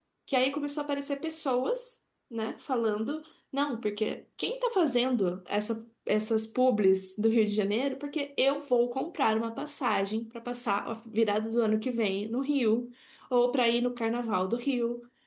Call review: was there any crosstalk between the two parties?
No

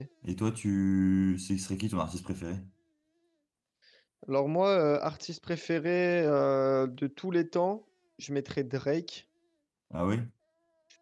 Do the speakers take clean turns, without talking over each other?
Yes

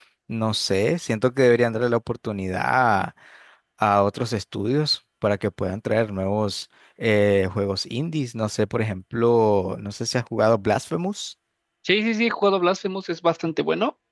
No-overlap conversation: Yes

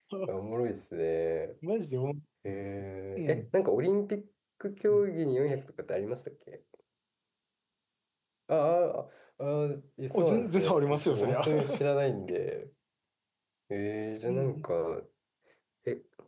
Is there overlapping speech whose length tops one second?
Yes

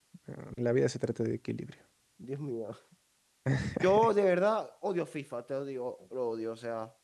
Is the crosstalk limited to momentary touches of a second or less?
Yes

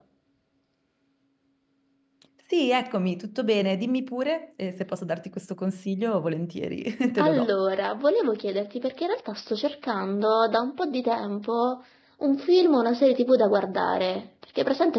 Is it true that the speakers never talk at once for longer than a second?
Yes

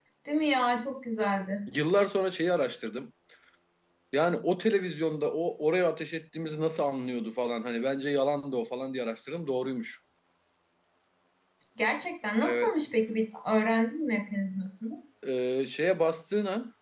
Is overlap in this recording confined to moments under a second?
Yes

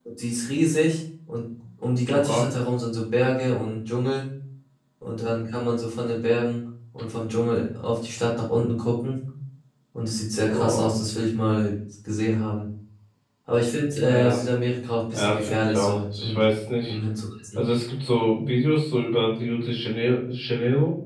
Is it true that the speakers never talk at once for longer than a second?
No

